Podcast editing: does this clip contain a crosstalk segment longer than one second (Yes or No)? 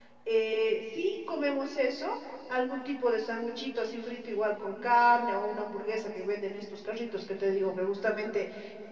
No